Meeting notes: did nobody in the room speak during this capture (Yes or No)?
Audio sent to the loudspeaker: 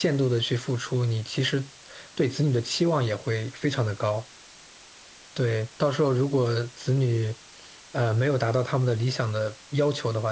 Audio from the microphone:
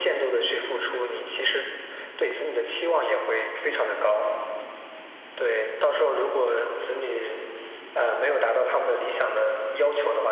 Yes